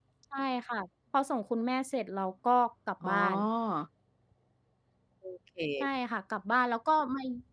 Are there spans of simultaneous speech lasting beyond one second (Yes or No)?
No